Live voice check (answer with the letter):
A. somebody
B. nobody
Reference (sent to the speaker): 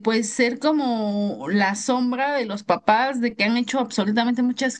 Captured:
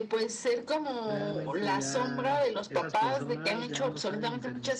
A